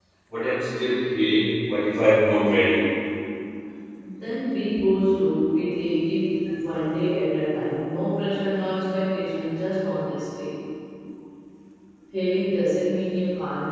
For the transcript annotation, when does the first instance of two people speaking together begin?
none

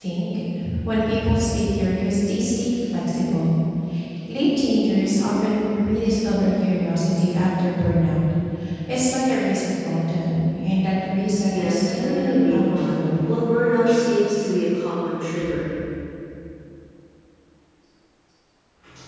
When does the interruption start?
11.5 s

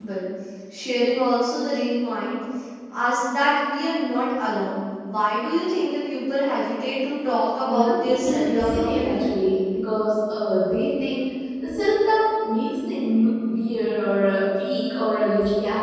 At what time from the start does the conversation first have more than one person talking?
7.7 s

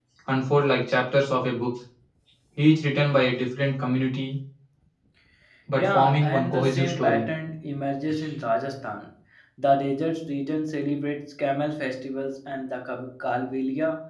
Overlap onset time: 5.8 s

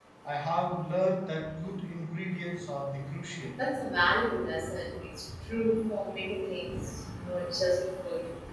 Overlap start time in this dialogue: none

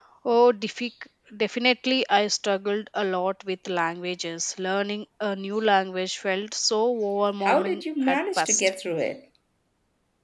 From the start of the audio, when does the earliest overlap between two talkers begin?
7.4 s

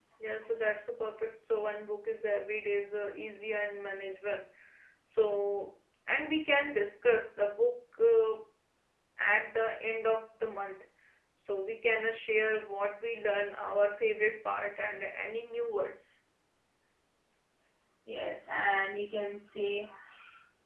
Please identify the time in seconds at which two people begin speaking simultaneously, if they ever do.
none

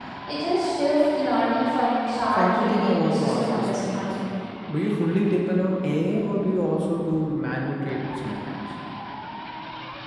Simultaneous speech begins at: 2.3 s

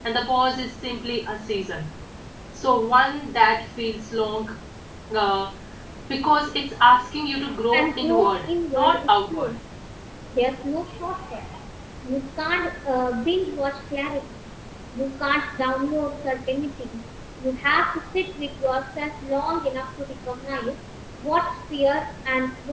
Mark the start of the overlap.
7.7 s

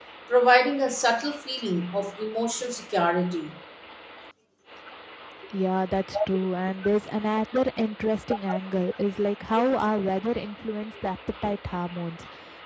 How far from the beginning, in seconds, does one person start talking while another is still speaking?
none

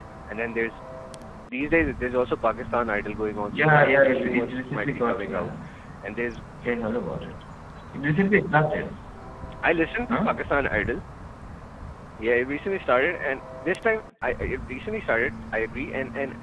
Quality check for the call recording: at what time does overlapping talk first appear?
3.5 s

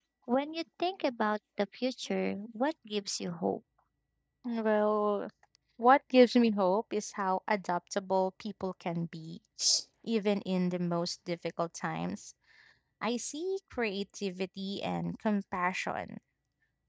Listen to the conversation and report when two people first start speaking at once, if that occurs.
none

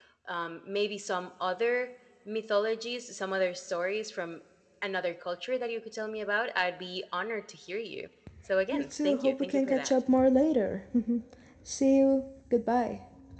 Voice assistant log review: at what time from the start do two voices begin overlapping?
8.7 s

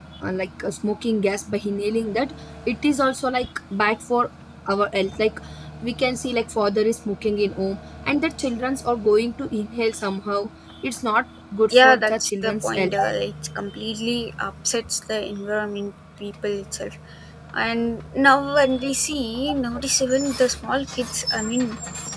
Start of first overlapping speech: 11.7 s

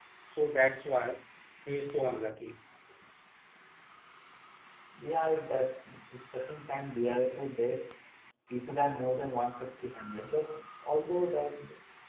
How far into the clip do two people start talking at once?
none

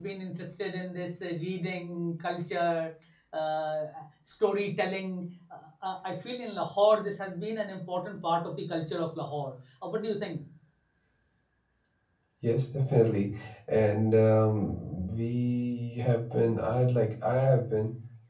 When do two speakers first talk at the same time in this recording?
none

